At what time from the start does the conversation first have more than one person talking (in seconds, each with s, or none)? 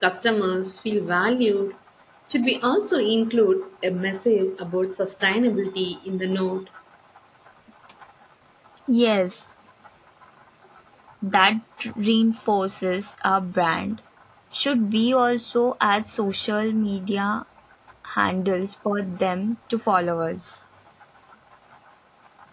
none